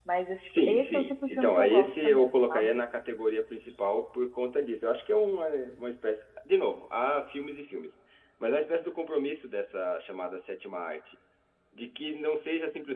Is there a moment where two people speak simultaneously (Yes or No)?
Yes